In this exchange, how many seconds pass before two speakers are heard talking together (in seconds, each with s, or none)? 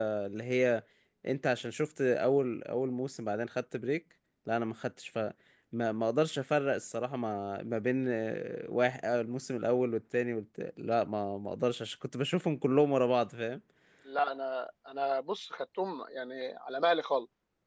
none